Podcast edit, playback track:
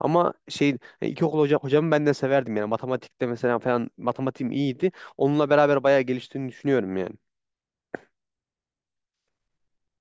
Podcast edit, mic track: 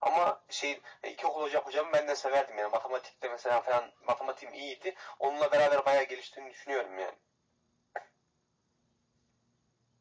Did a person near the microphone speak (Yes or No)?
No